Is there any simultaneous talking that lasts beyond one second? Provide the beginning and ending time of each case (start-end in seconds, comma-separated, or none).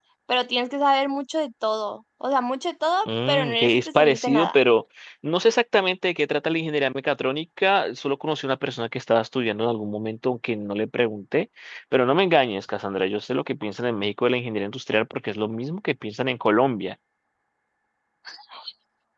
3.1-4.6